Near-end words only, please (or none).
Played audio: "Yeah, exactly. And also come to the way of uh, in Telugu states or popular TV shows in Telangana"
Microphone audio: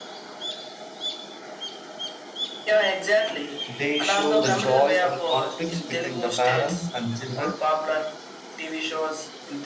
They show the joy and conflicts between the parents and children,